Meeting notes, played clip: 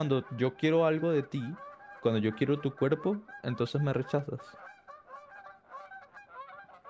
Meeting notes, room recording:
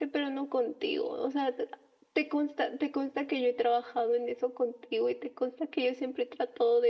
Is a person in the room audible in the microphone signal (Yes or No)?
Yes